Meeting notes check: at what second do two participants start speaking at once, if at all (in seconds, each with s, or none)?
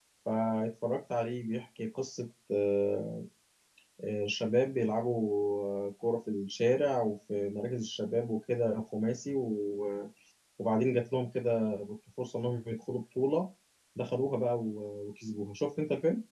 none